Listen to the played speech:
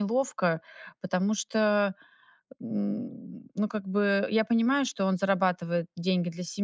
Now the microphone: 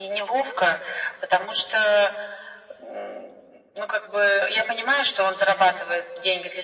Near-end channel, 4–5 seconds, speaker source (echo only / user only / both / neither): echo only